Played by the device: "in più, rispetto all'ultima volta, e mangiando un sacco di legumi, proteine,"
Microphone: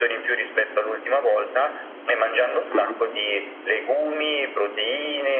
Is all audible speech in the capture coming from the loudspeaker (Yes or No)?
No